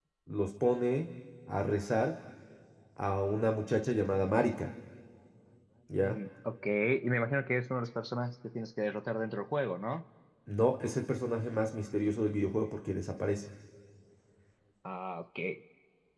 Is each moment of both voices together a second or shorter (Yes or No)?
Yes